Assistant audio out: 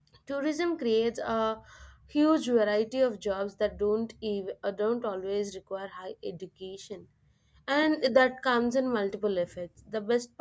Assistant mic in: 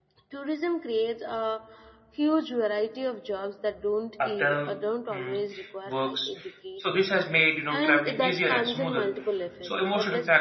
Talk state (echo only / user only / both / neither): both